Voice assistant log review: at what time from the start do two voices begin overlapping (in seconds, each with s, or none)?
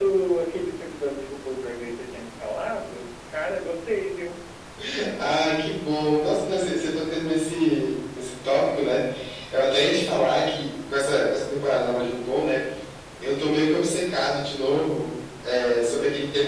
none